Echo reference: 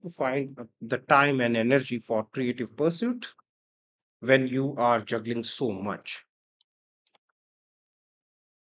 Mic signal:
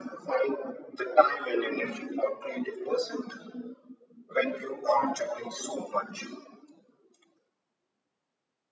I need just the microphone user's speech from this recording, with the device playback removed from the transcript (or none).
none